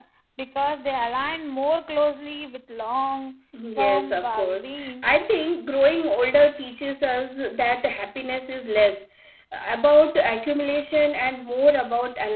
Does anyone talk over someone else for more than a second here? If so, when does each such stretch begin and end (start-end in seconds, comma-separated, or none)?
3.8-5.0